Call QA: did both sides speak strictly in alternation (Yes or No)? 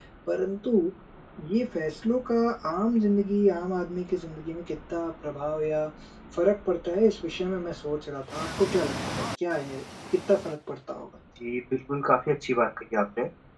Yes